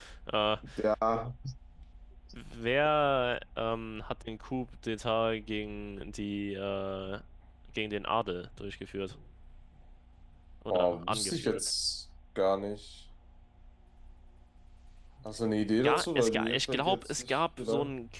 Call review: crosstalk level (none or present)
present